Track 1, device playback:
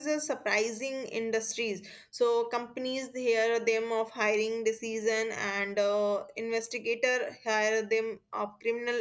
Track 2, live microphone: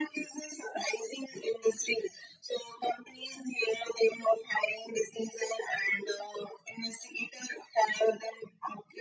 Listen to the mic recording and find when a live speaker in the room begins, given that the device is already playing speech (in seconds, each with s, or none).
none